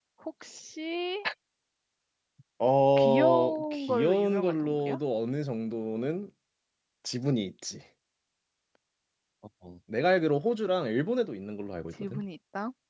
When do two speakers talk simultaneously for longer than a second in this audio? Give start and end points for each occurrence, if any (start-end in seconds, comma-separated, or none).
3.0-5.0